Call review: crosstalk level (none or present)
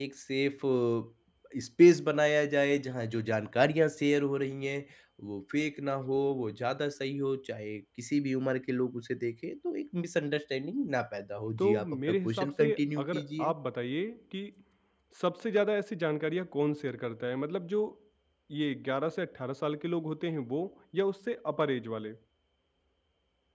present